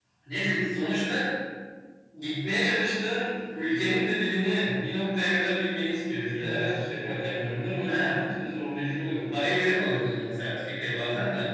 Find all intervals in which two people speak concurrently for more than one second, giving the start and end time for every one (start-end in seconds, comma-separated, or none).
none